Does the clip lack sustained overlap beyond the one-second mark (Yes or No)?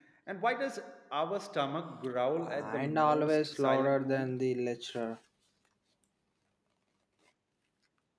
No